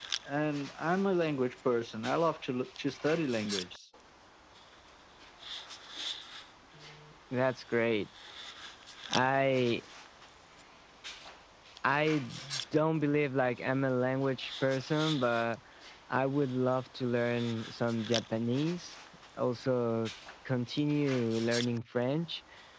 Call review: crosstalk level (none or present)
none